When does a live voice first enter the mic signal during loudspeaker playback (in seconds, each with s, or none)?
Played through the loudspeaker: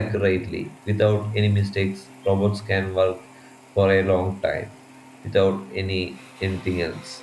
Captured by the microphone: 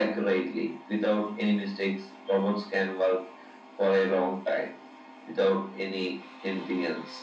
none